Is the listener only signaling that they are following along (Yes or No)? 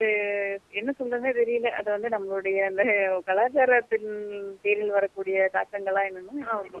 No